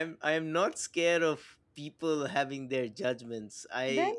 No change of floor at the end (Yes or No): Yes